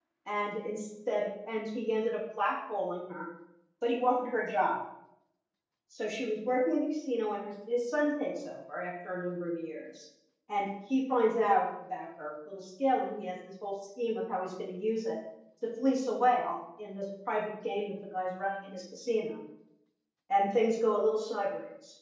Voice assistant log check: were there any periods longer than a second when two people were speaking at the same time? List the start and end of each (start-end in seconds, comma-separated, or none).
none